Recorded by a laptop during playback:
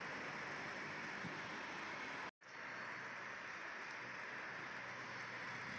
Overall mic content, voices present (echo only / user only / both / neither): neither